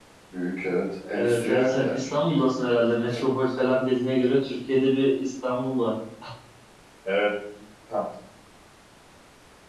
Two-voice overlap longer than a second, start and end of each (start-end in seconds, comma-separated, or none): 1.1-2.4